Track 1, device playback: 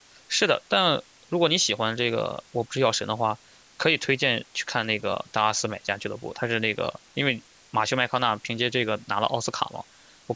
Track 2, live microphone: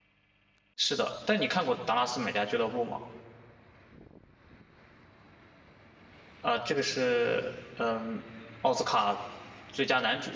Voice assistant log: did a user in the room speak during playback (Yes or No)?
Yes